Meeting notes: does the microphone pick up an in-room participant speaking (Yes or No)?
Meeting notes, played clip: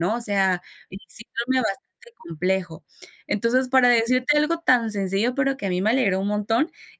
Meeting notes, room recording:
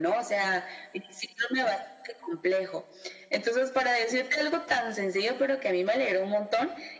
No